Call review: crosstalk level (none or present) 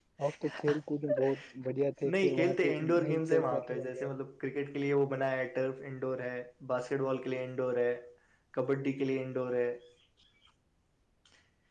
present